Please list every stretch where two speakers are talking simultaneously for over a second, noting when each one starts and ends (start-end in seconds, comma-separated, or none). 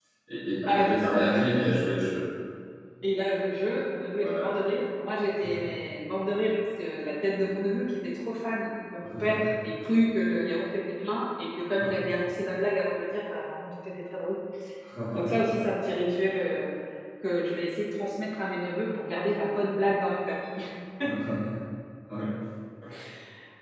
0.7-1.9